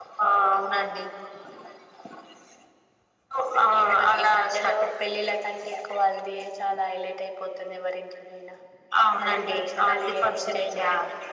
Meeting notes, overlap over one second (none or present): present